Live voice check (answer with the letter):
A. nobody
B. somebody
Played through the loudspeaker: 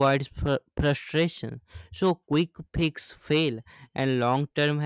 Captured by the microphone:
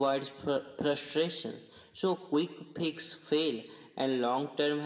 A